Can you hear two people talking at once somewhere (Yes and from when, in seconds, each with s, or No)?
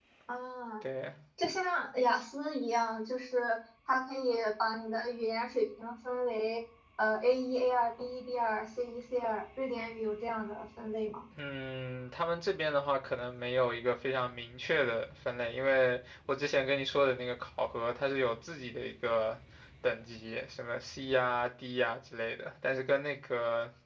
No